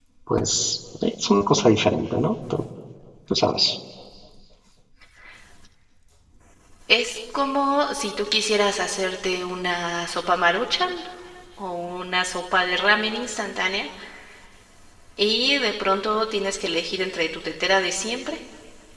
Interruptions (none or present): none